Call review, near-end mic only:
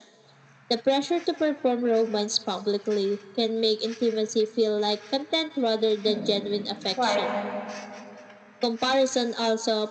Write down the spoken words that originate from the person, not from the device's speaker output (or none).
Hmm. Right.